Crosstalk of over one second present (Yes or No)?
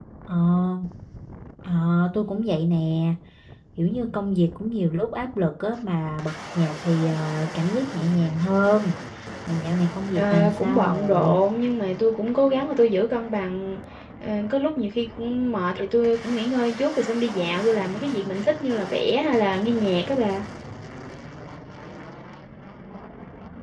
Yes